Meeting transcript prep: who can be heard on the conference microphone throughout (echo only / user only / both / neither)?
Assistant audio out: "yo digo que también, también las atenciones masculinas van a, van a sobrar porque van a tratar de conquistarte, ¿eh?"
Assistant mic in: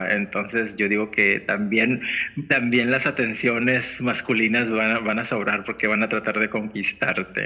echo only